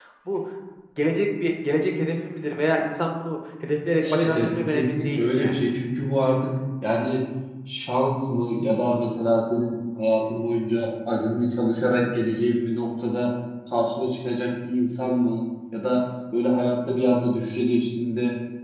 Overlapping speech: Yes, from 4.0 s

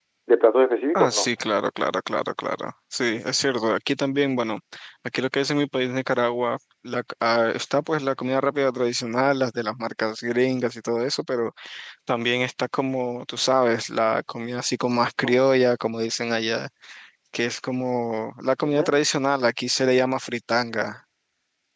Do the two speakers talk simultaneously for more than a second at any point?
No

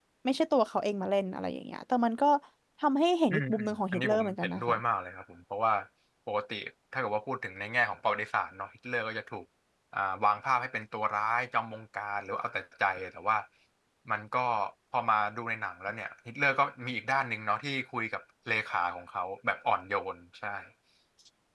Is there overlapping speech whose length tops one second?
Yes, from 3.3 s

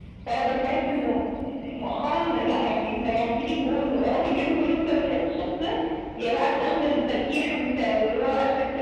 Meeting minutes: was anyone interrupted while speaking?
No

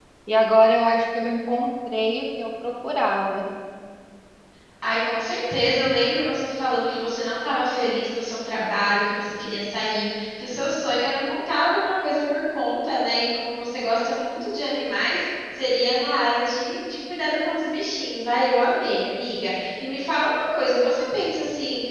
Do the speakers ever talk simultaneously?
No

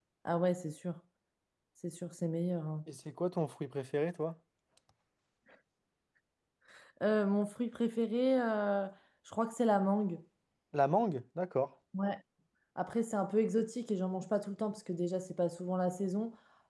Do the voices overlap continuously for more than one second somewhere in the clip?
No

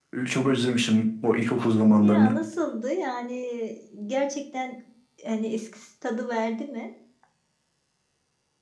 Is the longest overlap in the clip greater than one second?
No

